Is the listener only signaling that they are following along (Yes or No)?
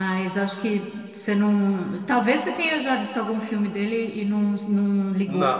No